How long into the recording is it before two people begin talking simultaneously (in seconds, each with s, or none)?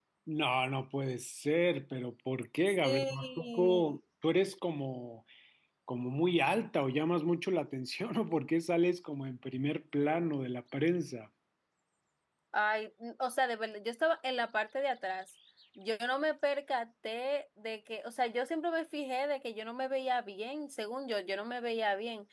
2.7 s